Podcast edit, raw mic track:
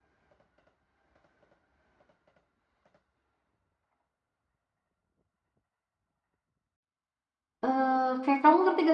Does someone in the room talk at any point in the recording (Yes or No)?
Yes